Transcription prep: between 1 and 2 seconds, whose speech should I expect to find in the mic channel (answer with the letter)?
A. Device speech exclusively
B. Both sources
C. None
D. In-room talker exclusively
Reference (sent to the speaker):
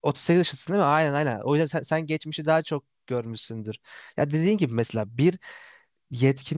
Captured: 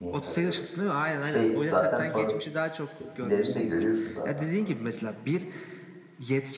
B